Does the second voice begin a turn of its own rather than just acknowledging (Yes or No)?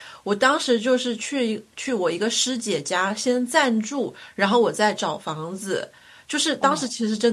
No